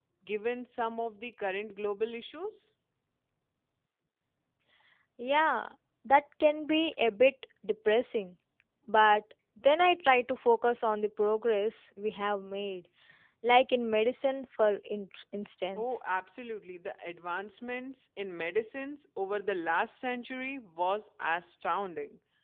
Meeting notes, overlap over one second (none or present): none